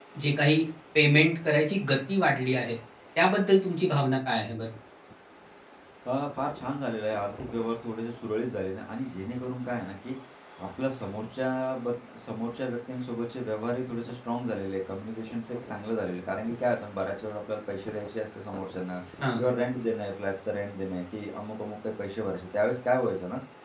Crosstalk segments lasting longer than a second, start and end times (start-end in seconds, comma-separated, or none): none